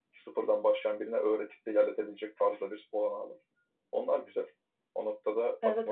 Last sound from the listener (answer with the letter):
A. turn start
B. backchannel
A